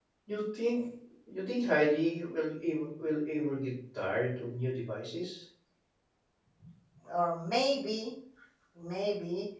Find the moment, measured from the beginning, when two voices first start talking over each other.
none

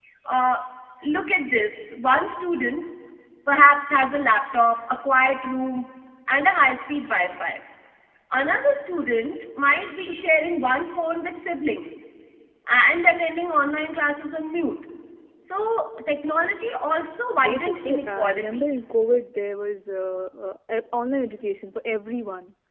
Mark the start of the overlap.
17.4 s

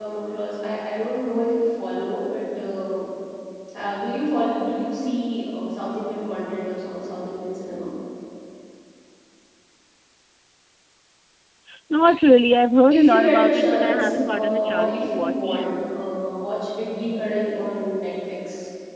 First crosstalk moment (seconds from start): 12.9 s

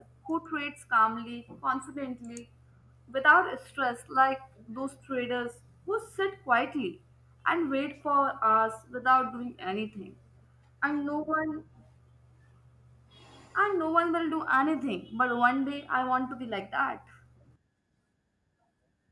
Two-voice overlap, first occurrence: none

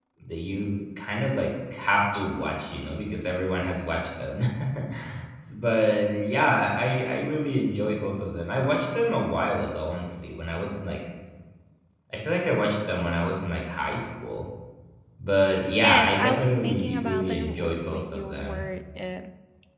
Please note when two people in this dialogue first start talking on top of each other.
15.8 s

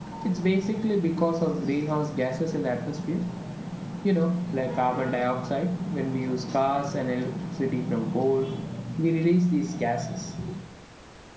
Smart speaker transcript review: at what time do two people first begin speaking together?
none

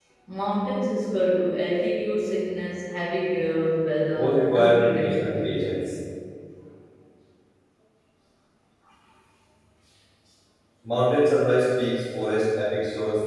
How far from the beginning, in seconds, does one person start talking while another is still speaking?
4.2 s

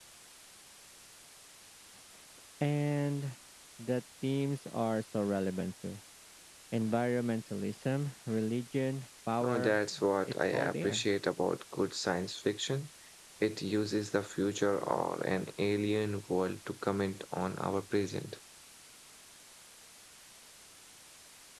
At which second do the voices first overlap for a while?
9.4 s

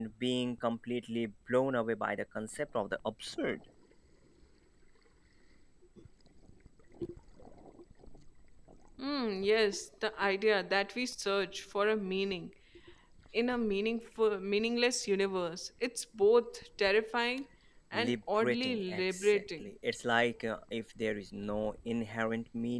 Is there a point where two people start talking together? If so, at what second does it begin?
17.9 s

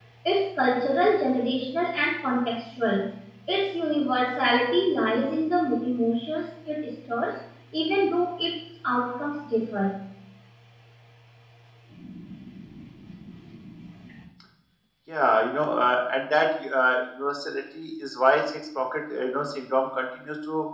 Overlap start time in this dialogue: none

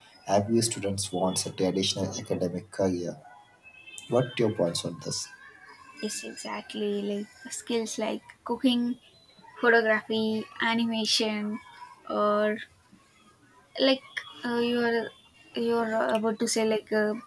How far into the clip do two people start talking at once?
none

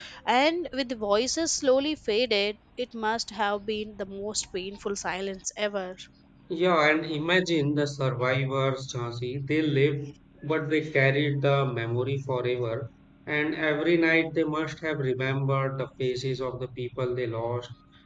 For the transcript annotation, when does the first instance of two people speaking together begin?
none

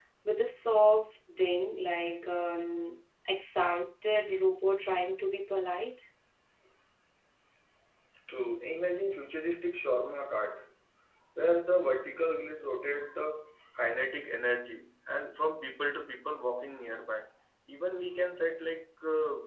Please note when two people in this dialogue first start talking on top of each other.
none

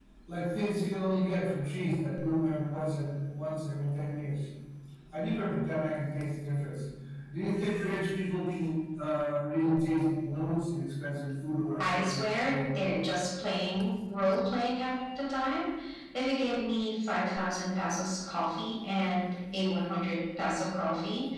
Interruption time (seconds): 11.8 s

